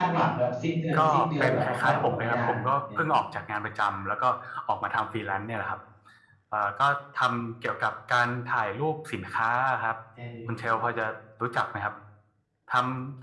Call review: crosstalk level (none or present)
present